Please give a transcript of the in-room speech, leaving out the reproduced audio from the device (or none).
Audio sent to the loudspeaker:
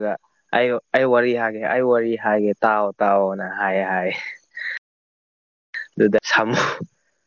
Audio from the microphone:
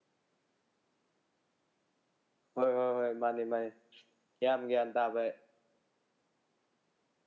ꯍꯣꯏ ꯍꯣꯏ ꯍꯣꯏ ꯃꯥꯅꯤ ꯃꯥꯅꯤ ꯌꯥꯝ ꯒ꯭ꯌꯥꯟ ꯇꯥꯕ